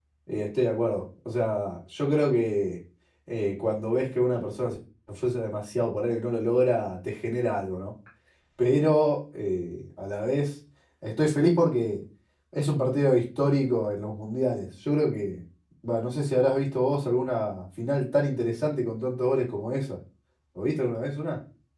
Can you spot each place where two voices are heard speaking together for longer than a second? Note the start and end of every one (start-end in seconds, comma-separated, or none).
none